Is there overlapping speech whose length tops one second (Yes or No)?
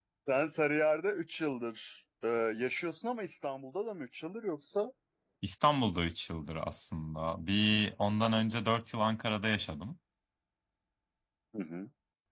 No